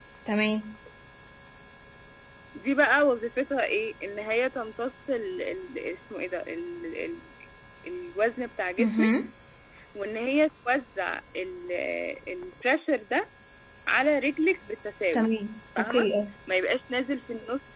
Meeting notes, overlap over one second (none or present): none